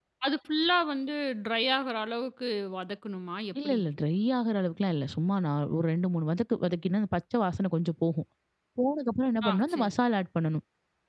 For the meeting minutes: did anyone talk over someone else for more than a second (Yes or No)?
No